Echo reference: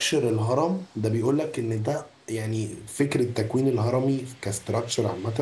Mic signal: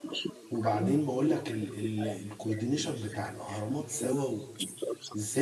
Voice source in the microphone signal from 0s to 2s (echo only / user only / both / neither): both